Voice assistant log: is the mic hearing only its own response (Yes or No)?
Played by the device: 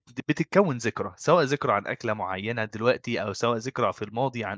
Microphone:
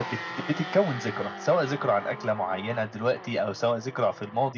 Yes